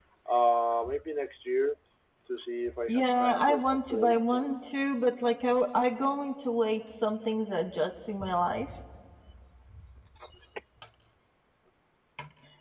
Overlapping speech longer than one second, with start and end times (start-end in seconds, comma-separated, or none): 2.9-4.5